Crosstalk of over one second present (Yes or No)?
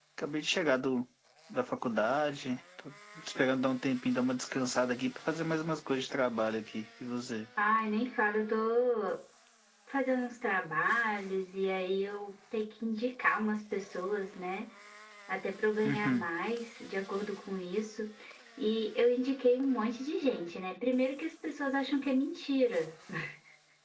No